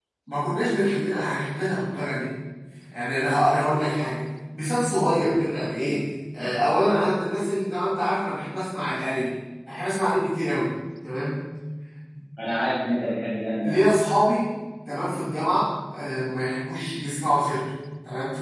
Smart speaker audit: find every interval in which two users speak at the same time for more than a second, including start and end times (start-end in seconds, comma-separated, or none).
none